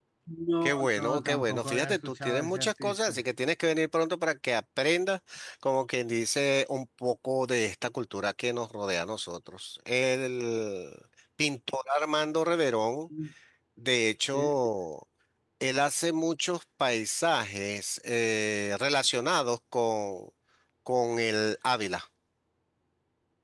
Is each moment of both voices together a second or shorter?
No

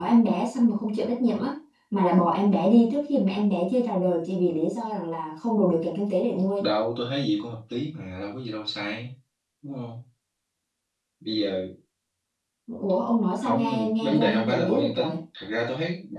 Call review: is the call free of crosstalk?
No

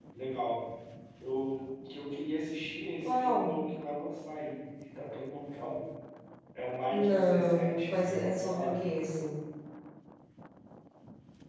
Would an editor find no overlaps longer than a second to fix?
No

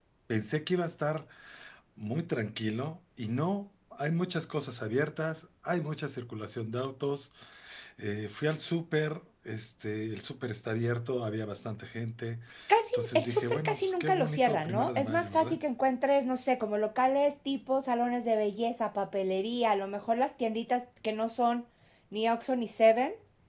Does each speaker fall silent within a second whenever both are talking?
No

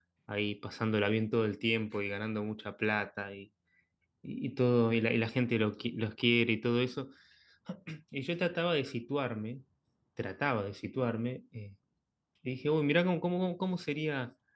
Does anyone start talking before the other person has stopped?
No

